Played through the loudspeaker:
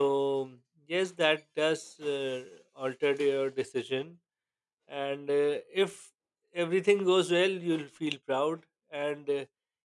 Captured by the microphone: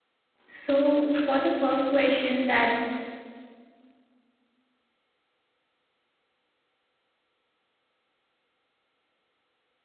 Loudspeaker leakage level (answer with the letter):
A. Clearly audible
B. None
B